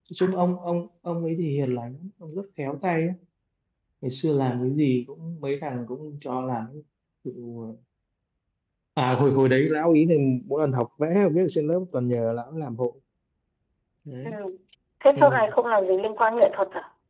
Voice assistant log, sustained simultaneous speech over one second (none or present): none